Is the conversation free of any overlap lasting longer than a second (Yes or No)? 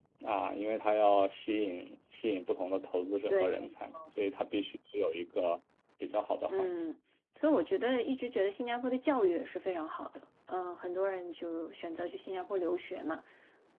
Yes